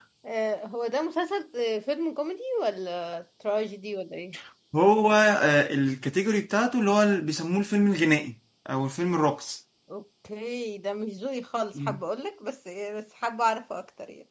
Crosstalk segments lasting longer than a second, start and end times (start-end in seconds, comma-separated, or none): none